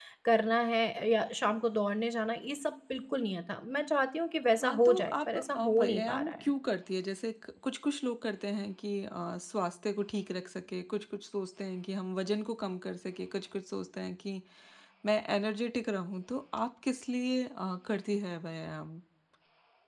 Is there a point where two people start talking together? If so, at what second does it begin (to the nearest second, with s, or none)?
5 s